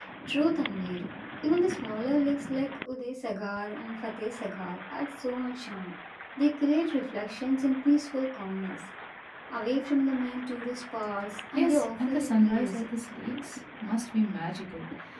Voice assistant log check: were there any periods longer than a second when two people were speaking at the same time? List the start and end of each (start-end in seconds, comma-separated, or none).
11.5-12.8